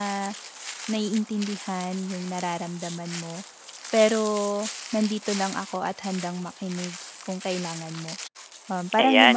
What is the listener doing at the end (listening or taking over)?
taking over